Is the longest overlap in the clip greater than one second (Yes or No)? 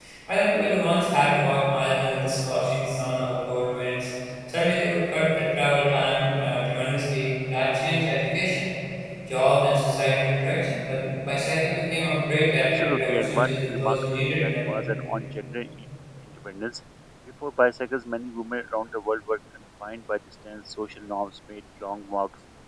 Yes